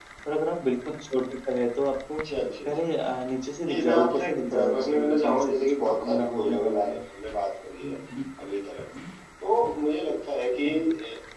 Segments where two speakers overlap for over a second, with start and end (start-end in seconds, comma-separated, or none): 3.7-7.0